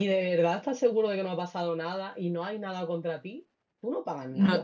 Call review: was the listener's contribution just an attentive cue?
No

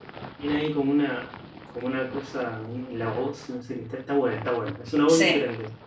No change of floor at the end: No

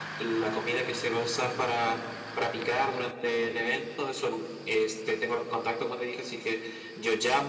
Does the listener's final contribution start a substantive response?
No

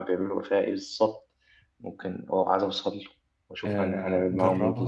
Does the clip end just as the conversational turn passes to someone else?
Yes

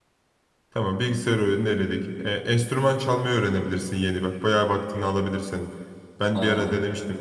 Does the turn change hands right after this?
No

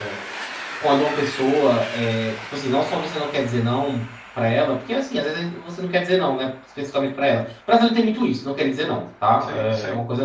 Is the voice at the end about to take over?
No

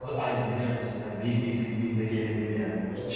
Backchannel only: Yes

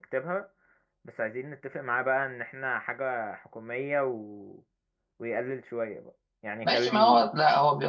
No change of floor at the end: No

